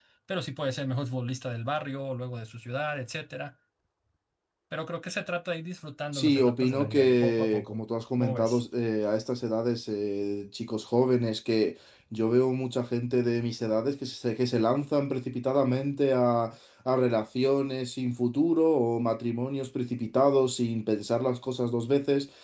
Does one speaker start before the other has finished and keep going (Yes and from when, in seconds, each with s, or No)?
Yes, from 6.1 s